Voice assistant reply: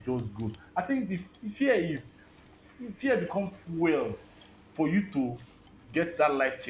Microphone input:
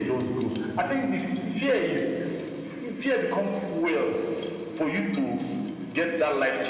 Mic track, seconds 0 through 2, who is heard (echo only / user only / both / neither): echo only